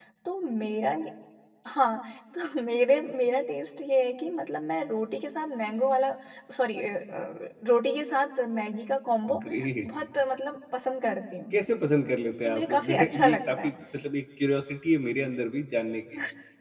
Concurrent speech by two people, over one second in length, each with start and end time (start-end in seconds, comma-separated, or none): 12.4-13.7